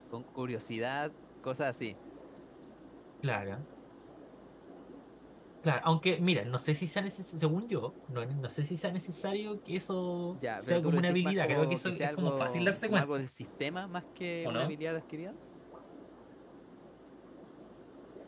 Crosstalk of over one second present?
Yes, from 10.3 s

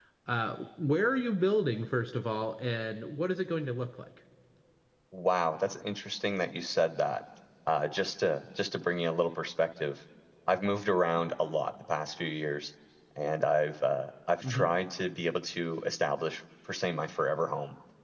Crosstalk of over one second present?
No

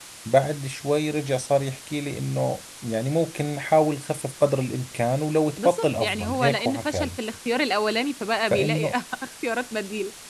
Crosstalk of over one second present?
Yes, from 5.5 s

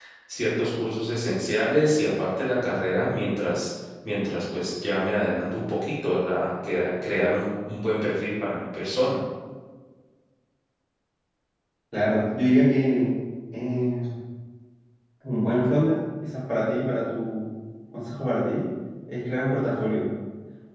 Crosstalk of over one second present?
No

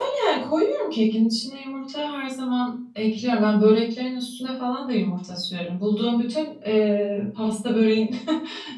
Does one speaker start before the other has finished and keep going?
No

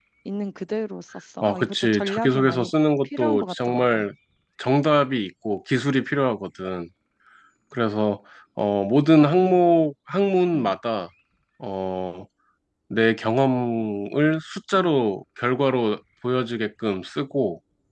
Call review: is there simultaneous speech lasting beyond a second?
Yes, from 1.4 s

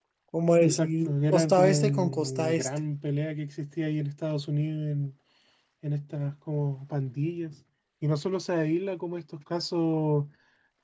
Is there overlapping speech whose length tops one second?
Yes, from 0.6 s

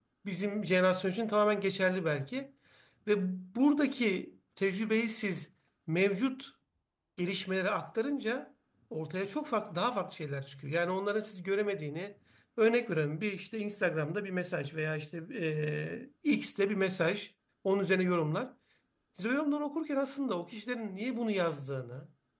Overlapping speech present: No

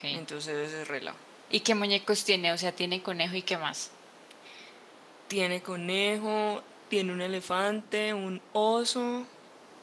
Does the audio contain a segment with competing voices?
No

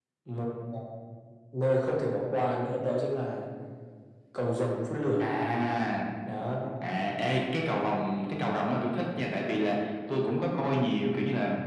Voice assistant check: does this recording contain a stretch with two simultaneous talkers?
No

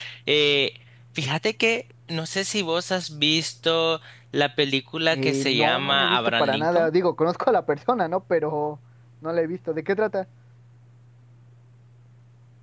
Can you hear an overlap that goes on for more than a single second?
Yes, from 5.1 s

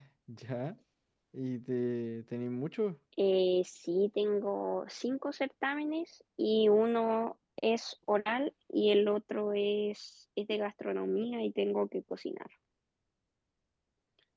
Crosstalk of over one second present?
No

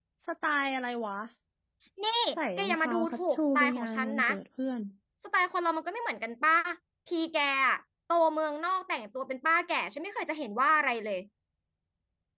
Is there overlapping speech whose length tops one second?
Yes, from 2.6 s

